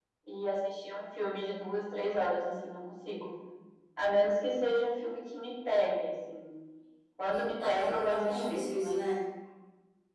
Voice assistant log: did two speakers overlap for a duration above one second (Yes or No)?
Yes